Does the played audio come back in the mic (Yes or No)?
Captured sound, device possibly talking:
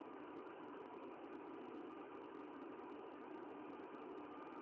No